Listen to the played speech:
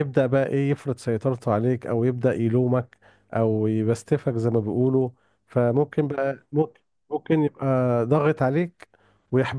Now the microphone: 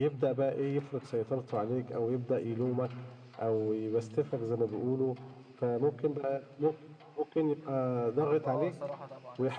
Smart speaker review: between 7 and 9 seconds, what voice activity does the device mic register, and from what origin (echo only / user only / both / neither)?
both